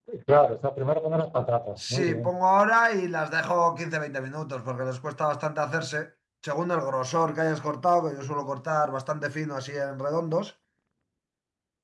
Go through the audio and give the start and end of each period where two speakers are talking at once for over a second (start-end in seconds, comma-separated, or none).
none